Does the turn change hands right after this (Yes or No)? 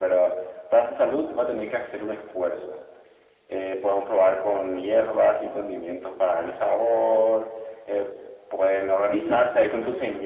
No